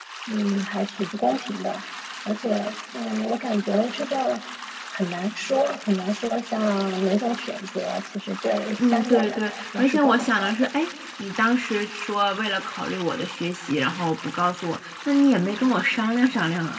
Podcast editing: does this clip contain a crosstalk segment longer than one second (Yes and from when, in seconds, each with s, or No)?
Yes, from 8.8 s